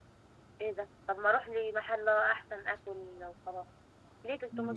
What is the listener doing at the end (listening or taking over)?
taking over